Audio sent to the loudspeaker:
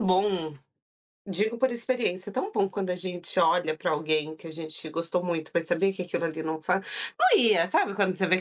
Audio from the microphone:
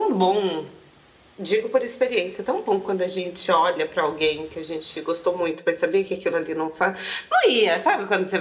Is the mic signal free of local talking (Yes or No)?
Yes